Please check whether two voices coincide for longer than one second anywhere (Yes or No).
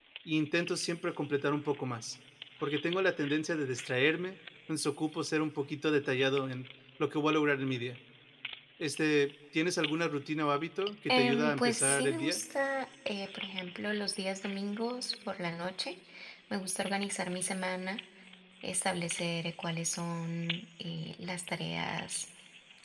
Yes